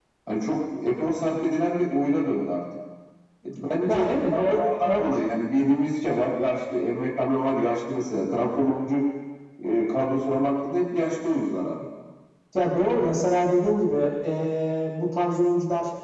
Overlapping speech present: Yes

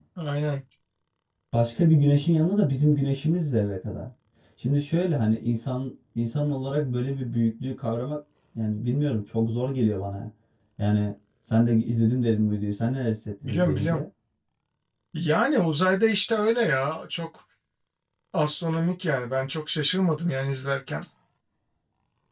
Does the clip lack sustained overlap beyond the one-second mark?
Yes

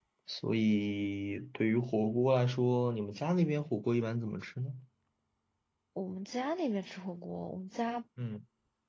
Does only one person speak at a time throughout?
Yes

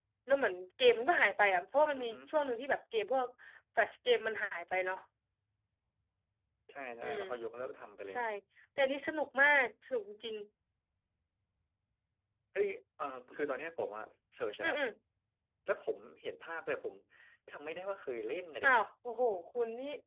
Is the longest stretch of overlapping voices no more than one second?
Yes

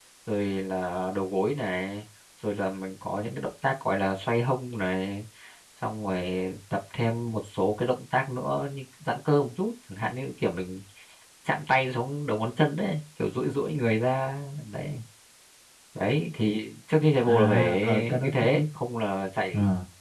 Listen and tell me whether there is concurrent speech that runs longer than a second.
Yes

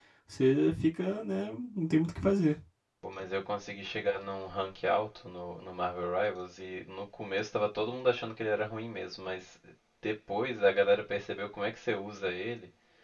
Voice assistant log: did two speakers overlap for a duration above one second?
No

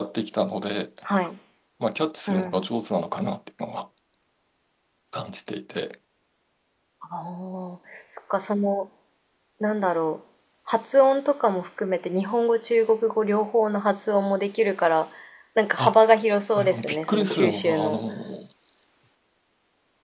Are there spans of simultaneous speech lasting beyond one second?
Yes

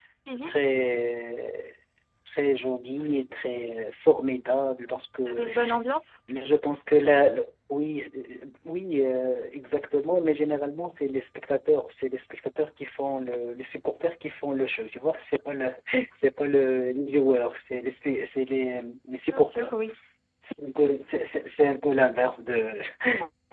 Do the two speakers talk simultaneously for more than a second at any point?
No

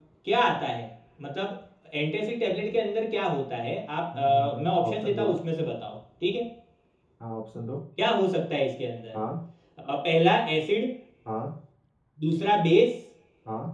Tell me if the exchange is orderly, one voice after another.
No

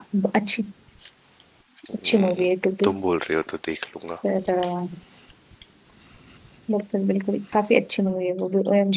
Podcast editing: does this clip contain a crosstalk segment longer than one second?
No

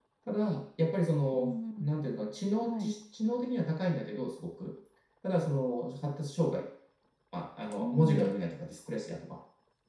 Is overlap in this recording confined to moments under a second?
Yes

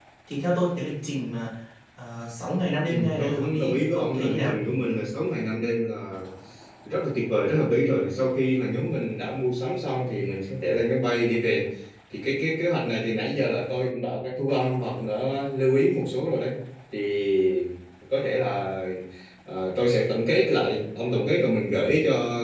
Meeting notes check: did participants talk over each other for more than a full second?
Yes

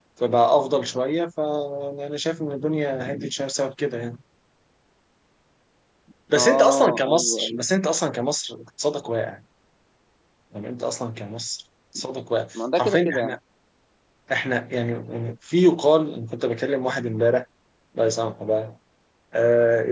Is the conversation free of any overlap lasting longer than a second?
No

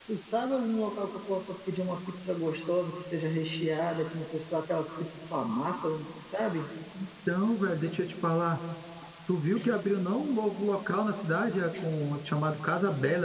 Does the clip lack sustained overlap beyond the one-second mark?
Yes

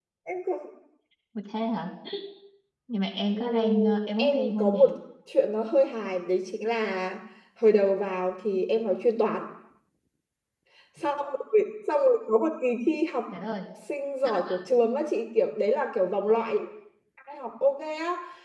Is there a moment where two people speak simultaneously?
Yes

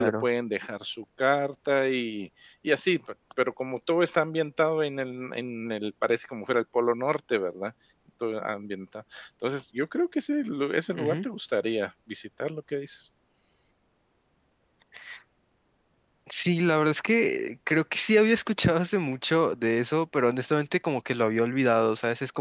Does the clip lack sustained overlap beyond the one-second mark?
Yes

